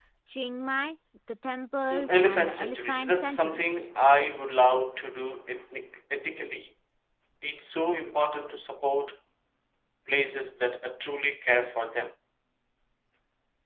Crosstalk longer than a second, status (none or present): present